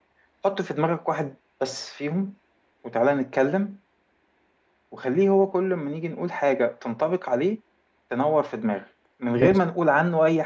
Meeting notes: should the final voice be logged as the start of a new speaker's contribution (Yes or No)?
No